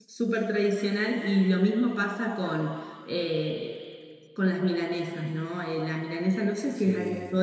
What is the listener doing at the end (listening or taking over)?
listening